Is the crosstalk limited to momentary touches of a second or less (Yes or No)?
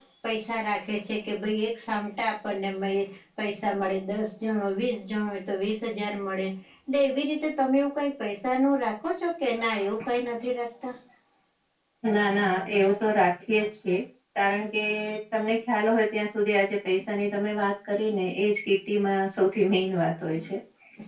Yes